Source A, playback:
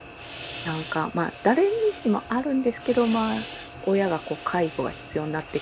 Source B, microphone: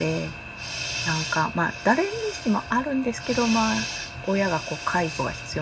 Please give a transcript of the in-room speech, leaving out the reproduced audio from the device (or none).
none